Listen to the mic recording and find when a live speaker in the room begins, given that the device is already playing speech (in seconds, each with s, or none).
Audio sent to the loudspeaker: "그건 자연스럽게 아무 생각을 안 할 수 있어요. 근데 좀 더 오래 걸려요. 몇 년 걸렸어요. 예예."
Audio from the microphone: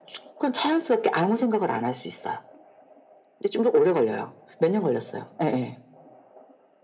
none